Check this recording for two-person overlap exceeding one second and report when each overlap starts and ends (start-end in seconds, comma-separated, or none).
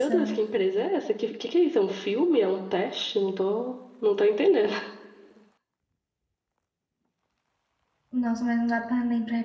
none